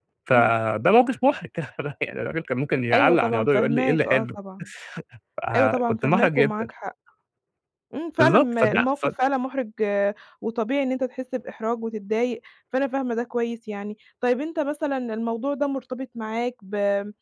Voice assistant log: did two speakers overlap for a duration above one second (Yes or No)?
Yes